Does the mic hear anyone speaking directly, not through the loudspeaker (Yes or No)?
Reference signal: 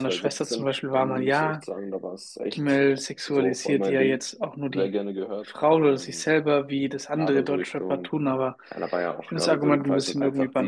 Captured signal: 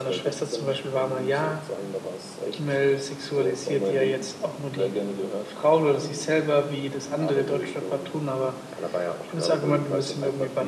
No